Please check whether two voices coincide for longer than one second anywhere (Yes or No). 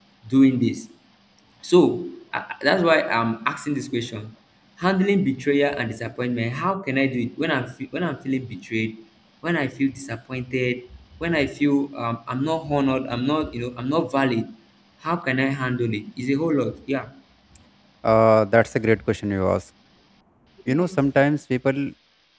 No